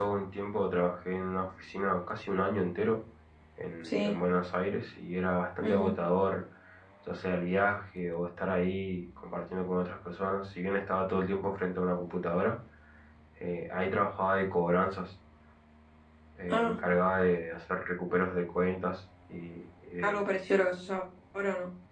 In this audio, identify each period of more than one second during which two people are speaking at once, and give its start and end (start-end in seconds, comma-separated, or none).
none